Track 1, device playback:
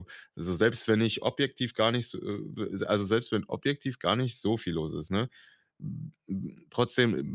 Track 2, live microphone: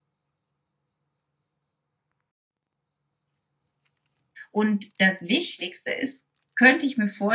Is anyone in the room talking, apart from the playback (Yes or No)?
Yes